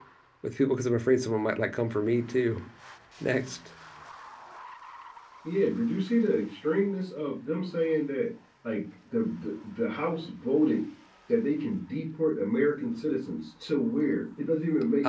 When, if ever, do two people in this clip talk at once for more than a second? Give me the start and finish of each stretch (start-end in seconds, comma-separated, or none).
none